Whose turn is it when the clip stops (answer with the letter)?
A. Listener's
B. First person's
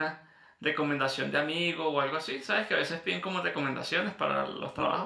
A